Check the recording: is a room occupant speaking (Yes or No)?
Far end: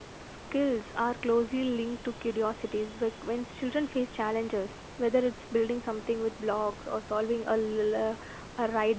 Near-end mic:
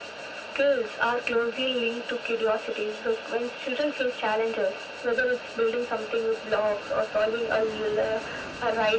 No